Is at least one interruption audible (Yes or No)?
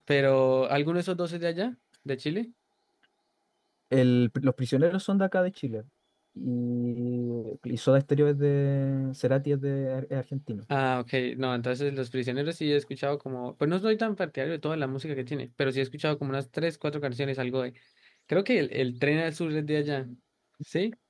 No